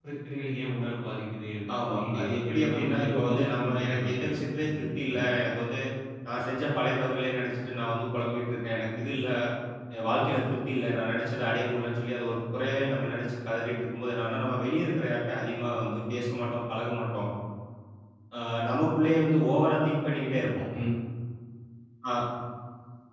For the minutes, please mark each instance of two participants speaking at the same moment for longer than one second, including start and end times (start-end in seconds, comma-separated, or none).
1.9-5.2